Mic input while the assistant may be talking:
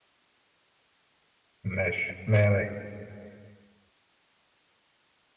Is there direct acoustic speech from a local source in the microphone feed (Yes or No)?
Yes